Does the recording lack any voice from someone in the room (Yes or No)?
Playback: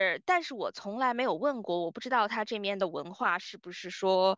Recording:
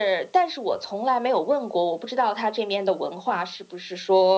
Yes